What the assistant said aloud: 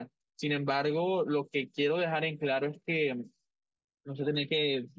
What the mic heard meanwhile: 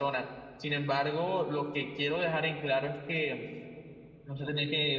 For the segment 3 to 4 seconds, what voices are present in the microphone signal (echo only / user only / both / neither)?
echo only